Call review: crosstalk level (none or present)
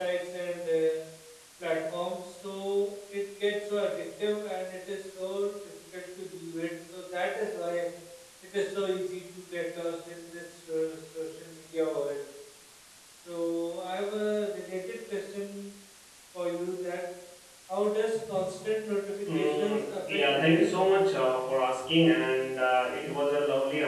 present